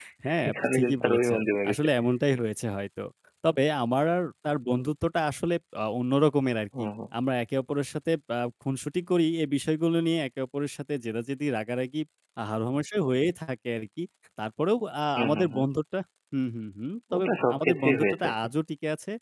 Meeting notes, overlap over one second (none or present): present